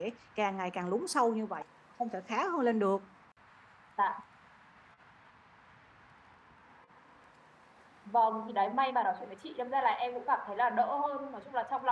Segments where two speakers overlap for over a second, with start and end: none

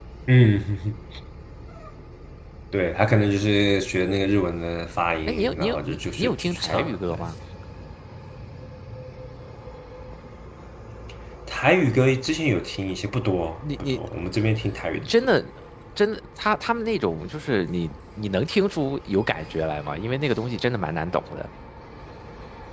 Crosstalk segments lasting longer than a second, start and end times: 5.3-7.2

